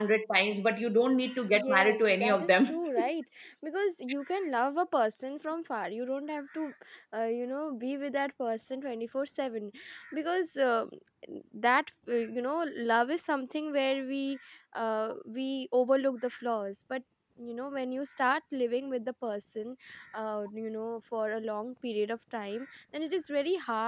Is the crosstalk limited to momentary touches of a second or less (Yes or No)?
No